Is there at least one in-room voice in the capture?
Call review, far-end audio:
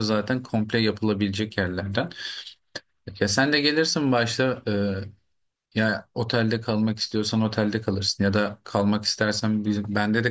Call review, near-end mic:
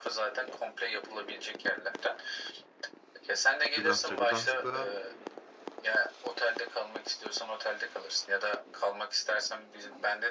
Yes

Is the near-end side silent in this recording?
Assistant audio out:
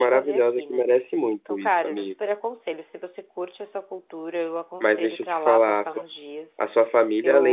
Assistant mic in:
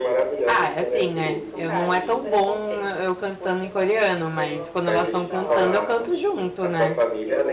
No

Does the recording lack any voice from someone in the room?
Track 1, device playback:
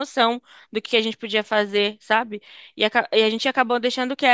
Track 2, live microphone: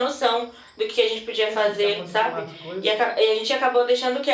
No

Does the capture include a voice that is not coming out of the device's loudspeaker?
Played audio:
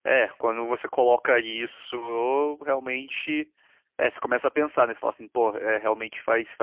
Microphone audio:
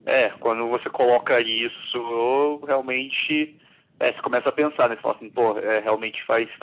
No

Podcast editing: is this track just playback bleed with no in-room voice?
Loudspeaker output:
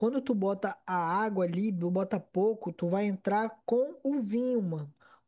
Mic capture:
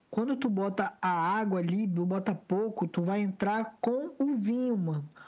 Yes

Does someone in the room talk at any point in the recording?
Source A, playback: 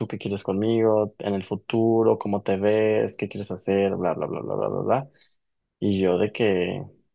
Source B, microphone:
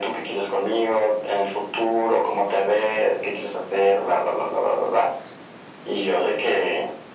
No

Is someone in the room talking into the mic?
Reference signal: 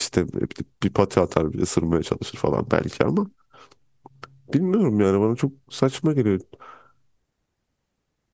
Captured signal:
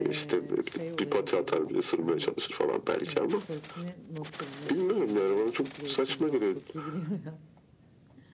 Yes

